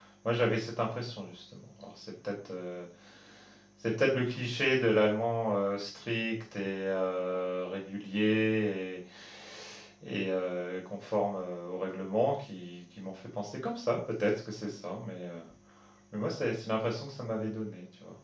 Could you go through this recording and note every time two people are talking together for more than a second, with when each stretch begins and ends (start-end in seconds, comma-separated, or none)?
none